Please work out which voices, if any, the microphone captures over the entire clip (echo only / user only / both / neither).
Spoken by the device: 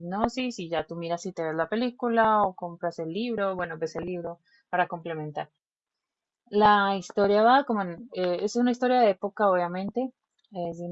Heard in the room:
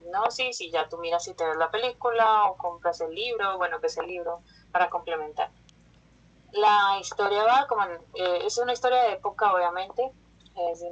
echo only